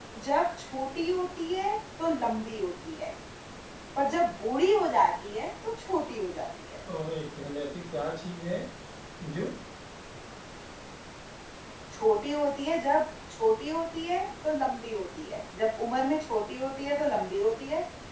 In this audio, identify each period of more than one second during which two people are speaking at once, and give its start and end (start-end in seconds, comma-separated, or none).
none